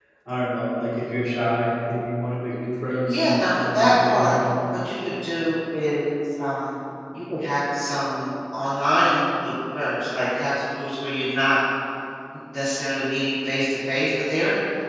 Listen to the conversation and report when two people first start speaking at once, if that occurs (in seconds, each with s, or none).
3.1 s